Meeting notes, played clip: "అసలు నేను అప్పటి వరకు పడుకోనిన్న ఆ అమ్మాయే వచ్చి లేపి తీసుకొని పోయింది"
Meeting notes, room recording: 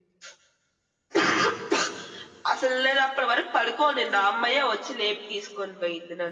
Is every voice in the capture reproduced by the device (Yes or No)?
Yes